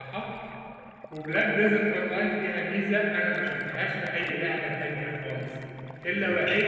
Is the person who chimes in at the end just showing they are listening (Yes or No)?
Yes